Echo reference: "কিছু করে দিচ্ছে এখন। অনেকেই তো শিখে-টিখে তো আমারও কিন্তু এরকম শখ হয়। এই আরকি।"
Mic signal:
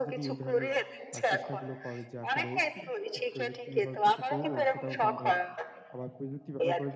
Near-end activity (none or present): present